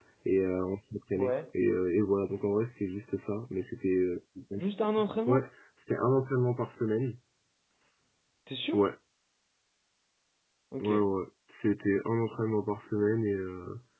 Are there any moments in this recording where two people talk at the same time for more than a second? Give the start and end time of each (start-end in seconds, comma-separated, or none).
none